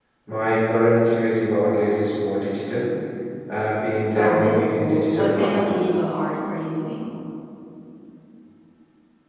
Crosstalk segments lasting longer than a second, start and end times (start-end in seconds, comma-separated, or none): 4.2-5.6